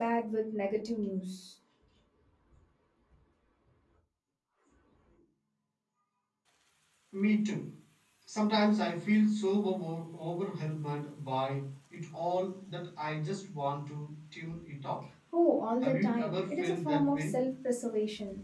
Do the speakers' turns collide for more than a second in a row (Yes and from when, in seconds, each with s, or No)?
Yes, from 15.8 s